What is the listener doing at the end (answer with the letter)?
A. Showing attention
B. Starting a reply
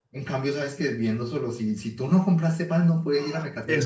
B